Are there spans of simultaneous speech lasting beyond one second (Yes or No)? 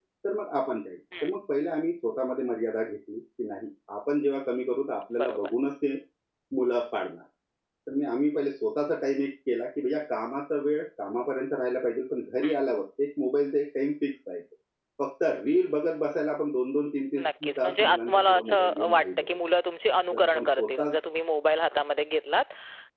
Yes